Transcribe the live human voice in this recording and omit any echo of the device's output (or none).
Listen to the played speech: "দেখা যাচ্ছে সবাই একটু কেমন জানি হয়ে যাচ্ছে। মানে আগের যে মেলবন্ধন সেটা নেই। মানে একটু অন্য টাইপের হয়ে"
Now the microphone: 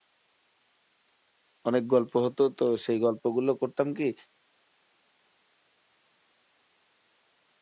অনেক গল্প হতো। তো সেই গল্পগুলো করতাম কি